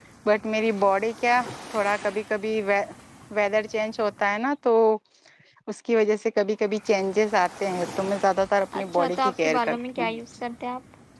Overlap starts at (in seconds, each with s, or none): 8.7 s